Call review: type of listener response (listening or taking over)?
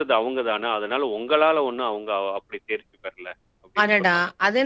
taking over